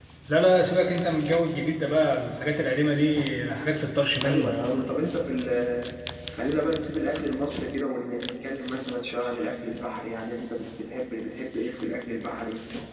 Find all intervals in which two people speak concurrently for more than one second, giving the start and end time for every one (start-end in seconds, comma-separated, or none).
none